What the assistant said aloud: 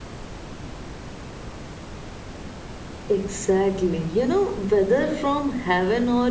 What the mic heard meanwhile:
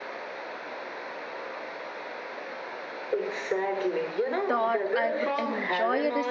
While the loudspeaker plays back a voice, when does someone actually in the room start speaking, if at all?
4 s

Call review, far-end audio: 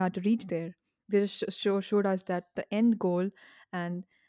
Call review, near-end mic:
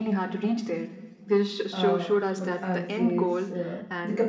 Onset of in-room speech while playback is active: 2 s

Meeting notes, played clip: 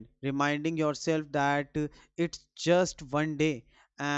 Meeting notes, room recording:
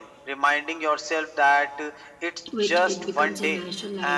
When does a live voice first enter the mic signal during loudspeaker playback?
3 s

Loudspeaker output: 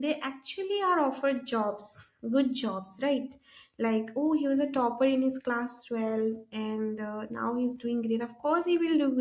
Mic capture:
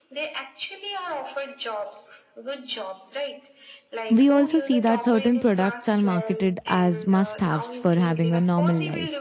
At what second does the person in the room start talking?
4 s

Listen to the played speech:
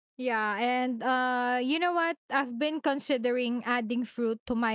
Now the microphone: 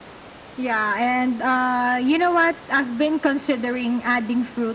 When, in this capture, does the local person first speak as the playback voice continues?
none

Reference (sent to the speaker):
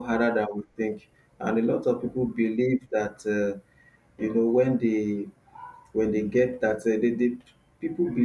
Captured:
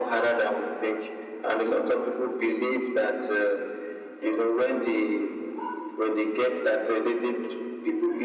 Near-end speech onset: none

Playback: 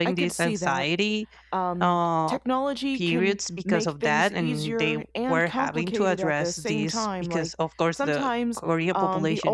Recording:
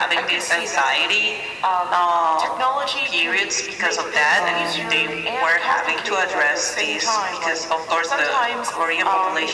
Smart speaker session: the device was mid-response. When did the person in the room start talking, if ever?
4 s

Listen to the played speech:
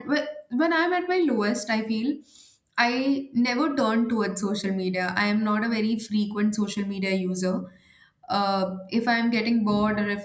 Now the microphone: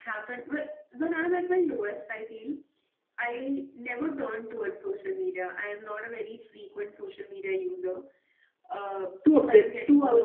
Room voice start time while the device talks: 9 s

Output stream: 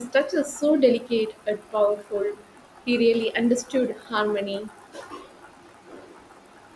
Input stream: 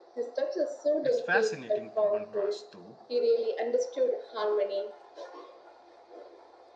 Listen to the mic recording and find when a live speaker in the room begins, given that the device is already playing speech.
1 s

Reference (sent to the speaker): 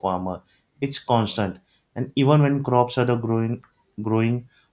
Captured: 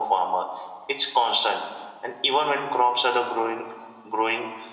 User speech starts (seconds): none

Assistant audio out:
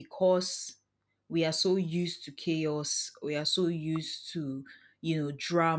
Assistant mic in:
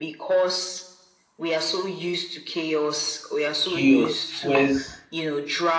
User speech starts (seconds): 4 s

